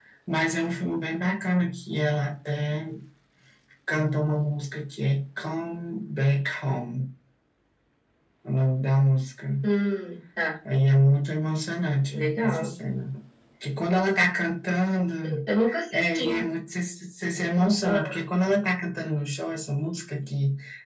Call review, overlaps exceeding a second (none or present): none